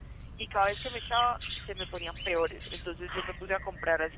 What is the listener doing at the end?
listening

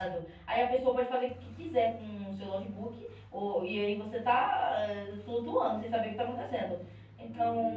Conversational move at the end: listening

